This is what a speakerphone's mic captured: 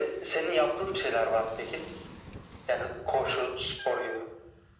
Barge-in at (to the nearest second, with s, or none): none